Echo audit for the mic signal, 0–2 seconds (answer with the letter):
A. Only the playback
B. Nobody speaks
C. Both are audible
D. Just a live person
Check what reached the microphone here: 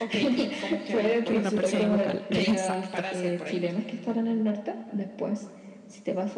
C